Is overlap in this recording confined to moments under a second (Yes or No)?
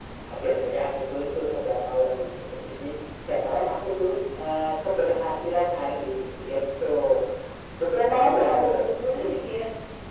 No